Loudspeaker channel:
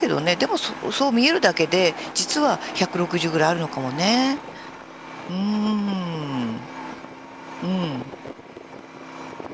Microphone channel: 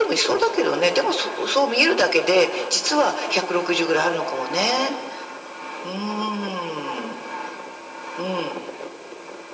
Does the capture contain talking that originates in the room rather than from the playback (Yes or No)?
No